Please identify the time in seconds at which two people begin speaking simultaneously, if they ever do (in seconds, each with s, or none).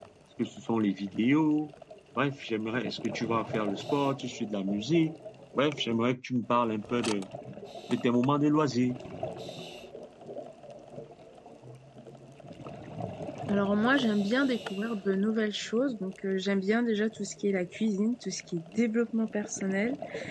none